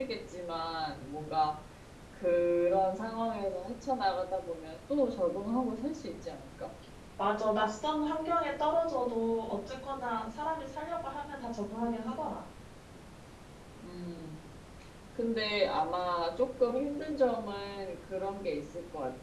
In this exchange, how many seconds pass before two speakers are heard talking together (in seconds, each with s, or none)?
none